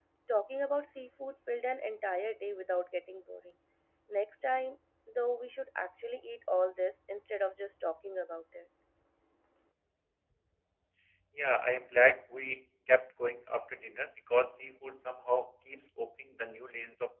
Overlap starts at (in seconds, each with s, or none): none